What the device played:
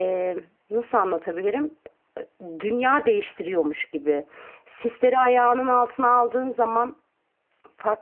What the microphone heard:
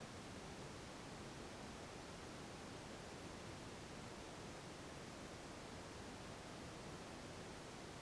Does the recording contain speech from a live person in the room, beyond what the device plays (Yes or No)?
No